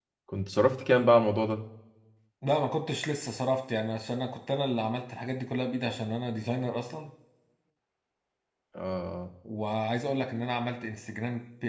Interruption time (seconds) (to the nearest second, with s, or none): none